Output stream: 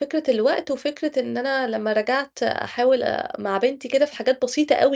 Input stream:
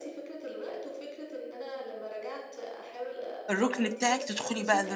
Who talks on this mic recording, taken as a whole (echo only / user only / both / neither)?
both